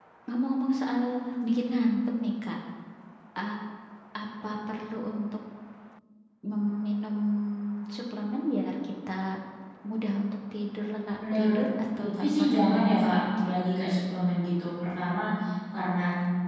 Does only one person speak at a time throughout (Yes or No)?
No